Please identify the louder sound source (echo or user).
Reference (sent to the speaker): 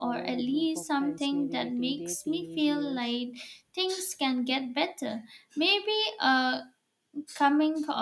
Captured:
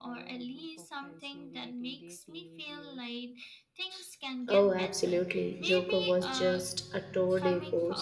user